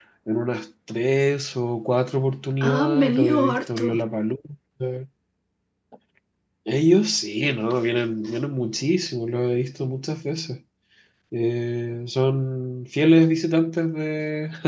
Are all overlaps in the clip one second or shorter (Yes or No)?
No